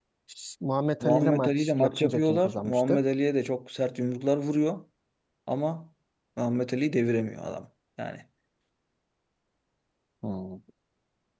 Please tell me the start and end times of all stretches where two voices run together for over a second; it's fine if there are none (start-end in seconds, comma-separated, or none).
1.0-3.0